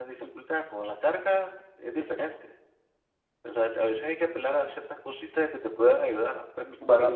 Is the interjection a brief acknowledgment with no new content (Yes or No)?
No